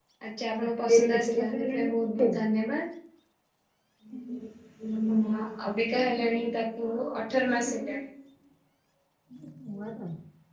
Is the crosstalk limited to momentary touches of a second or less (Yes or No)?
No